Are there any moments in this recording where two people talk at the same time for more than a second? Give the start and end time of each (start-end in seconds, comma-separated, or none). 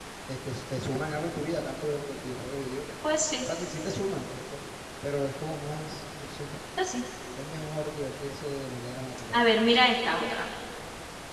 none